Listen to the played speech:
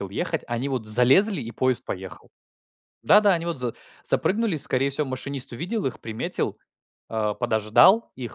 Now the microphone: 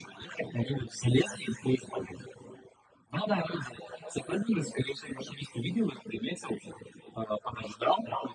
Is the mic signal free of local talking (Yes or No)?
Yes